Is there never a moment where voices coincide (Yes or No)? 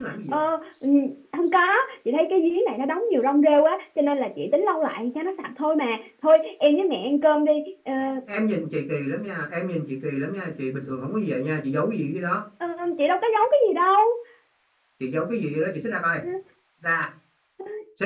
Yes